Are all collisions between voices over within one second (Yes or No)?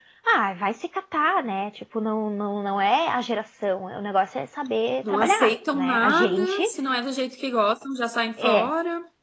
No